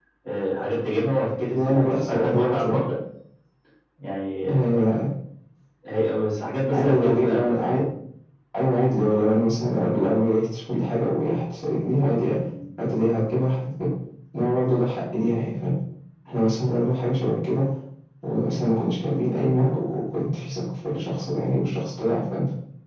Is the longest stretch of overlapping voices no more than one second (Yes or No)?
No